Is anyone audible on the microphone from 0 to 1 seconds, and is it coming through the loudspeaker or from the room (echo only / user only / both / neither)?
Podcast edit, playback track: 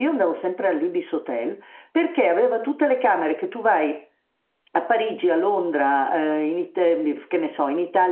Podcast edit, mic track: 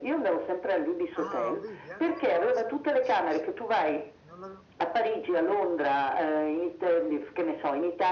echo only